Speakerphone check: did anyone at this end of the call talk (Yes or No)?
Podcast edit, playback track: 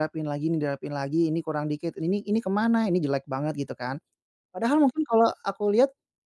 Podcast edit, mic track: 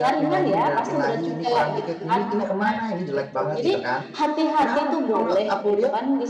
Yes